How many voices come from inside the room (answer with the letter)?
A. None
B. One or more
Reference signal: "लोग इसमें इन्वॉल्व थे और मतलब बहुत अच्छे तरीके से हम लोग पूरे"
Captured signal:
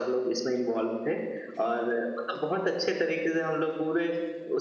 A